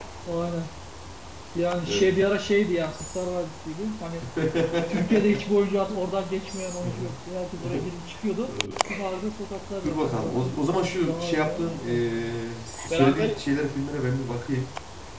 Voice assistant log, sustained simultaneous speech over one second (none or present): present